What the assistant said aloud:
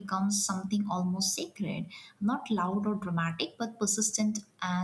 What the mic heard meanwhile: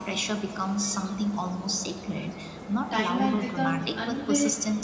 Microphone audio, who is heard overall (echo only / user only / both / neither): both